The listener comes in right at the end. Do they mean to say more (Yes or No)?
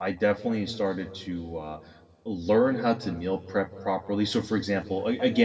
No